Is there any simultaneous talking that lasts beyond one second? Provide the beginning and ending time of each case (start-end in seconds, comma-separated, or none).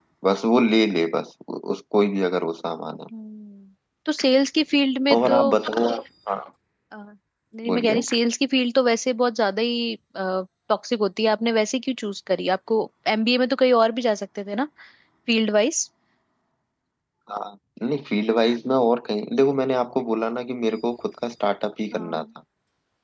none